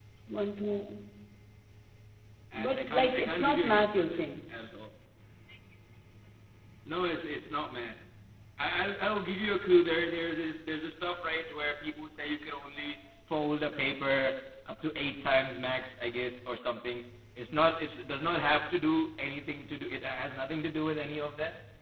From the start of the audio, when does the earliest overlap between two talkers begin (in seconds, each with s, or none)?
2.5 s